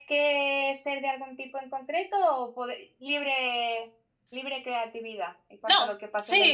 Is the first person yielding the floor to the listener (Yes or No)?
Yes